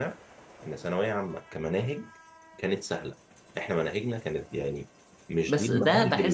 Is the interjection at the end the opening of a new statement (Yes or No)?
Yes